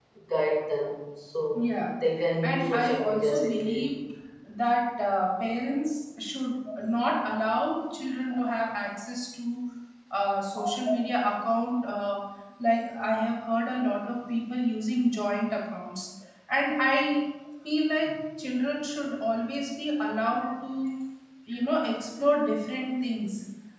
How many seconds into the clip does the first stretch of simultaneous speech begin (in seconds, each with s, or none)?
2.4 s